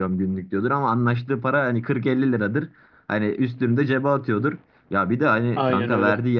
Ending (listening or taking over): listening